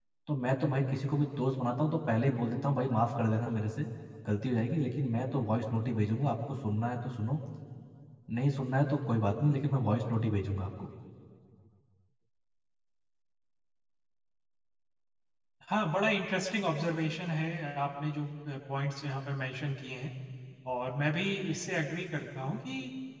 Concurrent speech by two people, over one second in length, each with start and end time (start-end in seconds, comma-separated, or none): none